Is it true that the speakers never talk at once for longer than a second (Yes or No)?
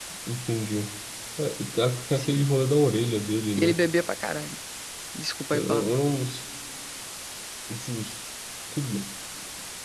Yes